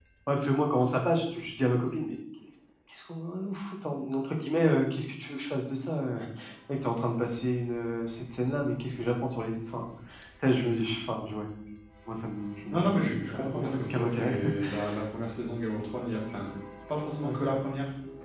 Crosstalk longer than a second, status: present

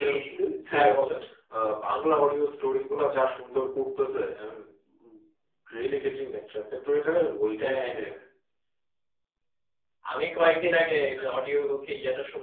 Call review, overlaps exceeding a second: none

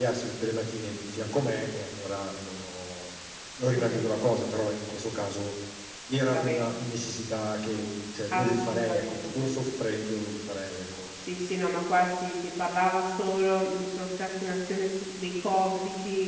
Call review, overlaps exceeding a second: present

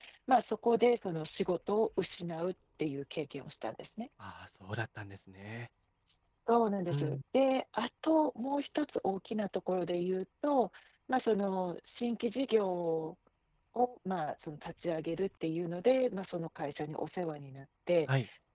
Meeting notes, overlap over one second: none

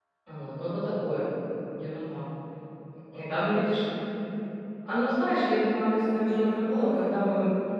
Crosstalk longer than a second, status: present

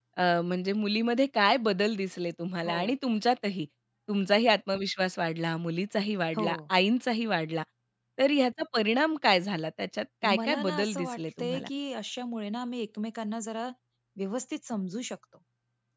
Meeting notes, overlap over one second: present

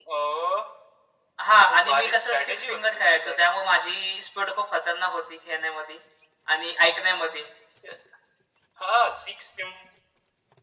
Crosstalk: present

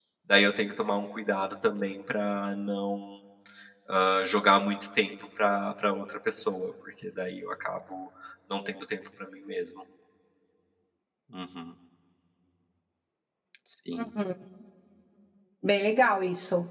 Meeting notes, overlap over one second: none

